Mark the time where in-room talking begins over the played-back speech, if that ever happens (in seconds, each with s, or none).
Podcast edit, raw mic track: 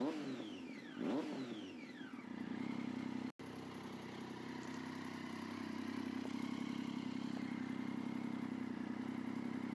none